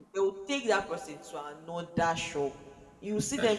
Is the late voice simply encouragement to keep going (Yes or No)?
Yes